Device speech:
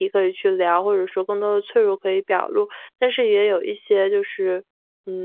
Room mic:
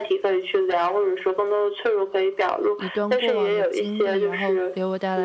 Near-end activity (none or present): present